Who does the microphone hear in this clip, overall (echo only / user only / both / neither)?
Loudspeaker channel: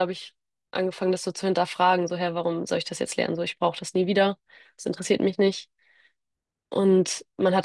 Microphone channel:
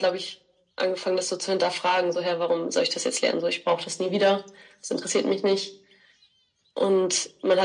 echo only